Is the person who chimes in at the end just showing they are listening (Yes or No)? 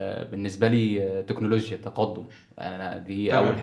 No